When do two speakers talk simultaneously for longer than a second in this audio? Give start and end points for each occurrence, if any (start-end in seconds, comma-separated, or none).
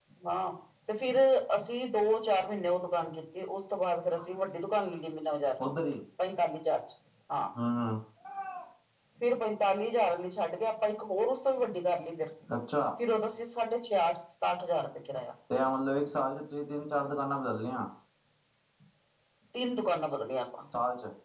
none